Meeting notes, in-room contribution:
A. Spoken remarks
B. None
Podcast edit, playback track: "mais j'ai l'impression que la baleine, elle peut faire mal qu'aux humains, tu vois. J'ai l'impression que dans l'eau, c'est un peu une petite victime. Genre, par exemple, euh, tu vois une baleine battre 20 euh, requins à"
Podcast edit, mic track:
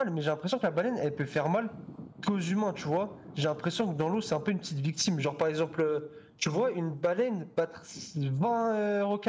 B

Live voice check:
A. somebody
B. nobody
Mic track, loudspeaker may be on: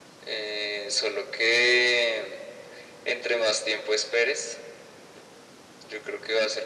B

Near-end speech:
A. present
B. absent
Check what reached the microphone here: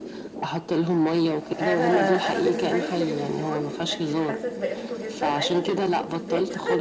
A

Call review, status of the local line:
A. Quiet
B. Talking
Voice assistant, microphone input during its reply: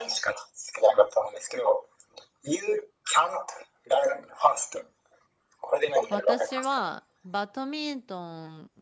B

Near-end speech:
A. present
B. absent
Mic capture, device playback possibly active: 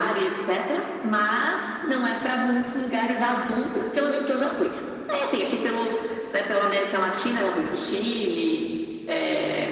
B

